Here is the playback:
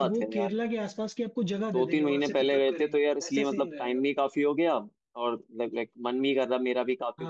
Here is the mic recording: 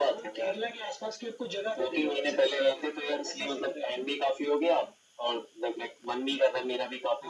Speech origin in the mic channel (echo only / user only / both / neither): echo only